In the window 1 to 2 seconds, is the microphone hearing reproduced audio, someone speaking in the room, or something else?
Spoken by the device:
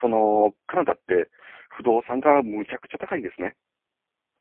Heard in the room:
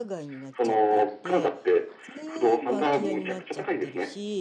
both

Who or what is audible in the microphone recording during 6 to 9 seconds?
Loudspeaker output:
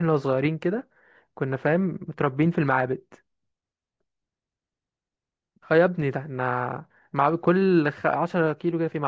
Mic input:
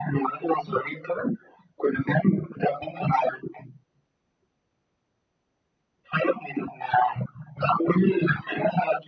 echo only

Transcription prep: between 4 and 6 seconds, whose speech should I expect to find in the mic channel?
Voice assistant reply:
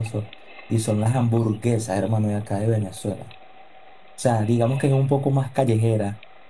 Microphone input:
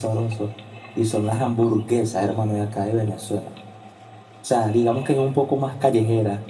echo only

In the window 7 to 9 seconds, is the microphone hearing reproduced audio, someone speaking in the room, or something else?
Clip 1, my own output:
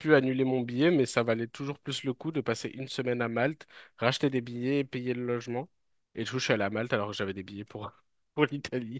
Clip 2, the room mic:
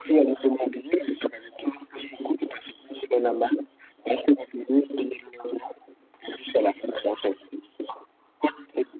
echo only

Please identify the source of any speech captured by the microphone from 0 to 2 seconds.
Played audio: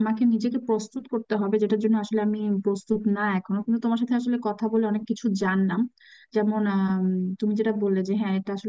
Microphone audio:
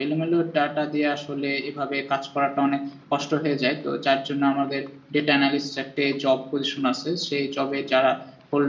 user only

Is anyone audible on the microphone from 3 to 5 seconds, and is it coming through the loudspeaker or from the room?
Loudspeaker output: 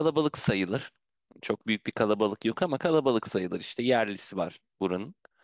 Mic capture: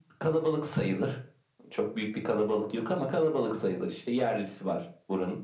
echo only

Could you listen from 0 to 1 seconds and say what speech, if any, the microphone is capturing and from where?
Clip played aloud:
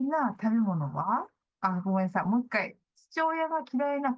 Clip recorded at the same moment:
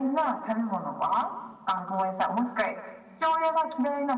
echo only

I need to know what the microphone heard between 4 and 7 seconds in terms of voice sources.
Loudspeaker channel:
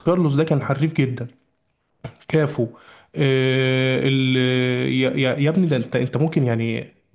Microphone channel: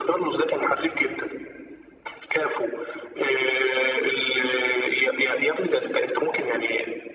echo only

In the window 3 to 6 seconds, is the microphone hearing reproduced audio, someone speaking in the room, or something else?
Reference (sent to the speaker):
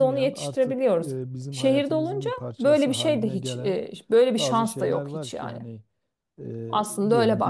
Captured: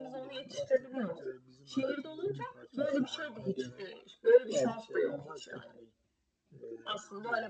echo only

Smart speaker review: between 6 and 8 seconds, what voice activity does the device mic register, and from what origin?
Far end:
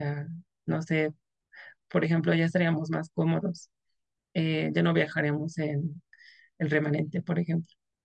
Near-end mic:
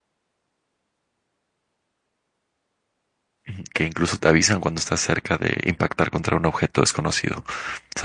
user only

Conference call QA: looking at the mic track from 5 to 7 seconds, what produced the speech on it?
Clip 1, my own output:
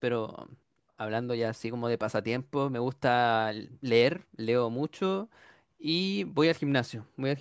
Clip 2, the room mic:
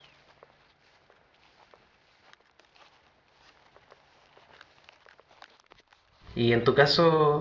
user only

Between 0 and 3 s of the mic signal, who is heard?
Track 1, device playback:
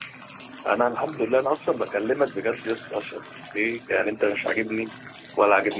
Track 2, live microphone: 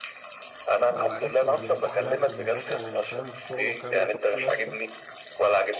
both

